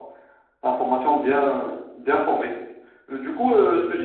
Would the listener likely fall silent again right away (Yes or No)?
Yes